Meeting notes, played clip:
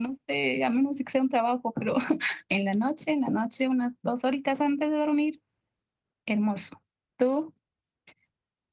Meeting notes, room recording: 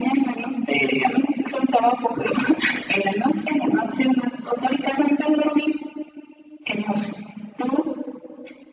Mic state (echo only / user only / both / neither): echo only